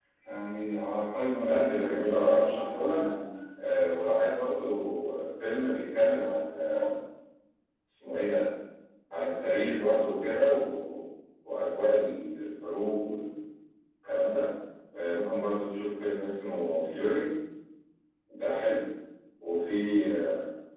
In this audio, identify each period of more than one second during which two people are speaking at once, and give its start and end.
1.4-3.0

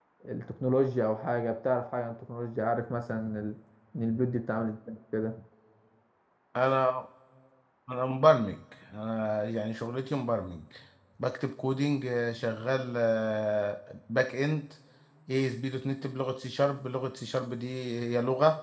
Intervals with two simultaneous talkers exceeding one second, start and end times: none

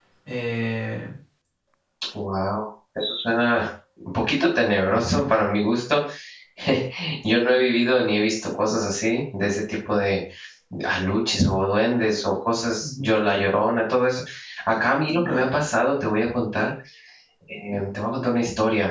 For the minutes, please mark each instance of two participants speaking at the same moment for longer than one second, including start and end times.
none

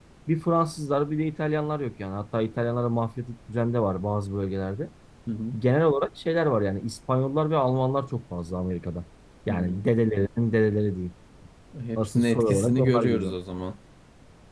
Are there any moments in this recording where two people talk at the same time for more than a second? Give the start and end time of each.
12.0-13.3

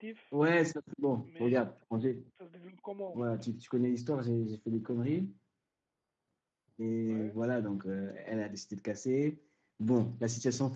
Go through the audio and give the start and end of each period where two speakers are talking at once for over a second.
none

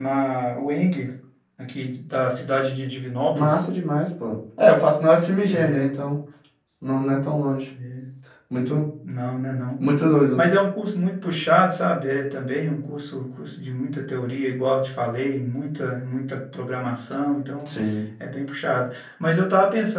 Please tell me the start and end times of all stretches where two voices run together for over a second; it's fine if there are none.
none

